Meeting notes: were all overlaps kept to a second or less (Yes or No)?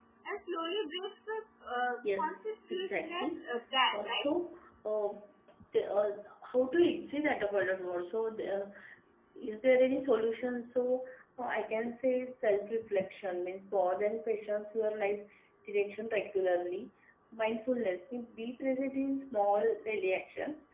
No